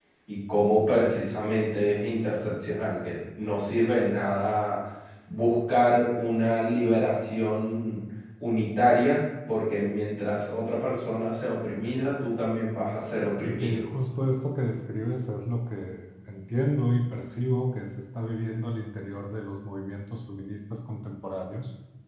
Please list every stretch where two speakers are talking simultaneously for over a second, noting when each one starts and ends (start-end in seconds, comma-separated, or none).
none